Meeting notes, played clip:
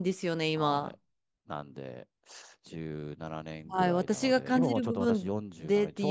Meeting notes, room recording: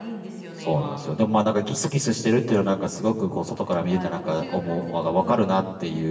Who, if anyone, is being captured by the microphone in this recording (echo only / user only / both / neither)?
both